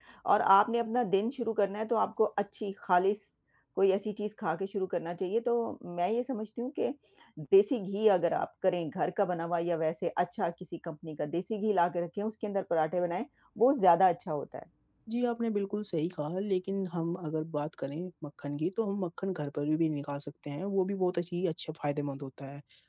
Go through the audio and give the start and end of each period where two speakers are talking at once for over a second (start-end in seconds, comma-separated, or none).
none